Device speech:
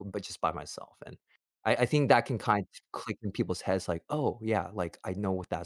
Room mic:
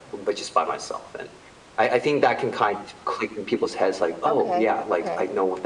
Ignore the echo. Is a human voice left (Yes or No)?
Yes